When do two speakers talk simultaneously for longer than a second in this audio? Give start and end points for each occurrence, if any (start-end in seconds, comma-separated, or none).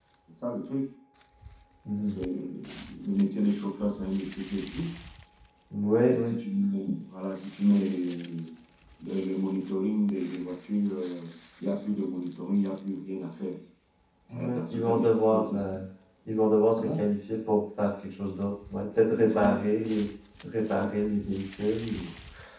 14.3-15.6